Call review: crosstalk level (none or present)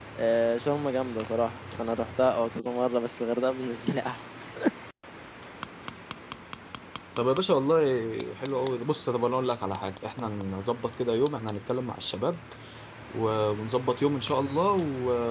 none